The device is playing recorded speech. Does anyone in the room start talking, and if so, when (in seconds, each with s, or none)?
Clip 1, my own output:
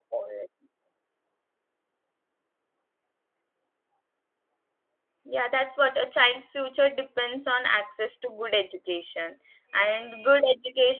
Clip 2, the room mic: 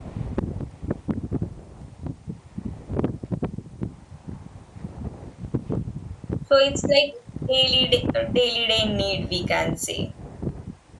6.5 s